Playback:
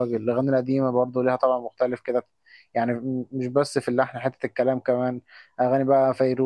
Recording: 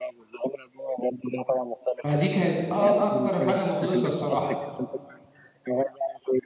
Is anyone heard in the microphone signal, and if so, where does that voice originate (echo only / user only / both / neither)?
both